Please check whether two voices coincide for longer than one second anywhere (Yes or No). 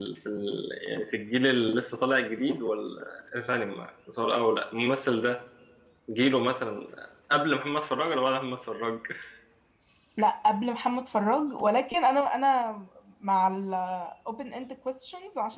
No